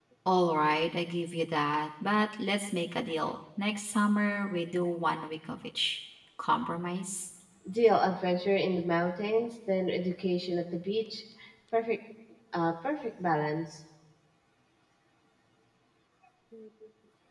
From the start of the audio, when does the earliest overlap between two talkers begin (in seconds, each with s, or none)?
none